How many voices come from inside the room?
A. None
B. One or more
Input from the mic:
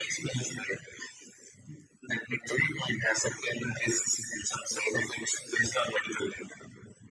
A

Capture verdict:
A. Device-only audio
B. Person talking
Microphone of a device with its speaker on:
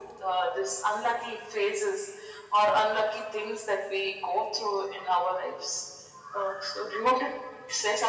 A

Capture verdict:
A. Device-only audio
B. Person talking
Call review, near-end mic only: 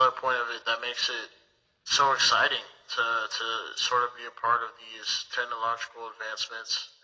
A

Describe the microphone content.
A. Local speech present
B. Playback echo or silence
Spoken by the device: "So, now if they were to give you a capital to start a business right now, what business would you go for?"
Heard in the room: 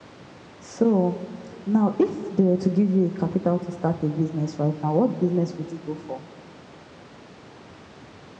B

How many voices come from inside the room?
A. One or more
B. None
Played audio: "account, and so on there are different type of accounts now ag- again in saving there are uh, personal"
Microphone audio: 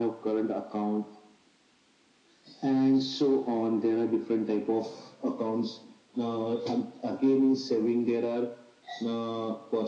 B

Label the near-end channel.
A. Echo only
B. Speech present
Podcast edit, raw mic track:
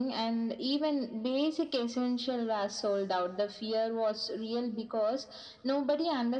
A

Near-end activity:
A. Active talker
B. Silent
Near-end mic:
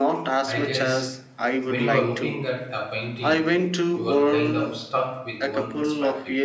A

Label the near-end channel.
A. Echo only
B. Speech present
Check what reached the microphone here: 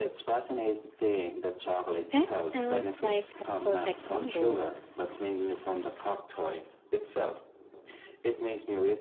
B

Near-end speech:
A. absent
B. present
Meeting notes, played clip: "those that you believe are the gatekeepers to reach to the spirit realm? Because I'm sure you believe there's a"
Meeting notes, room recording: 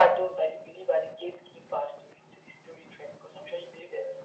A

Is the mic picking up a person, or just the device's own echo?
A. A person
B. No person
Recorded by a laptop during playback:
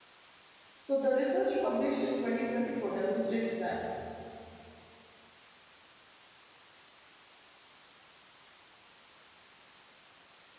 A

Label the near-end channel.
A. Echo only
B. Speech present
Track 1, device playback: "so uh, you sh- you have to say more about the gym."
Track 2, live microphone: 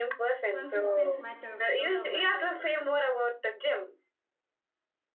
B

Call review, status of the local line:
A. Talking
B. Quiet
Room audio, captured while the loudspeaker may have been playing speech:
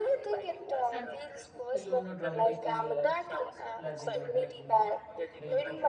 A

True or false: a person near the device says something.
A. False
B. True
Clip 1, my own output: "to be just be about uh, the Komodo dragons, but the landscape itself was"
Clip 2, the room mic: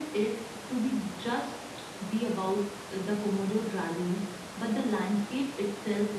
A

